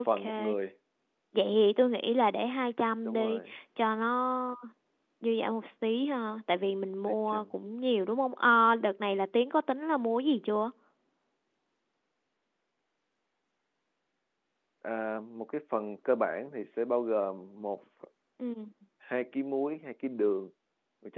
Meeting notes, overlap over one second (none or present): none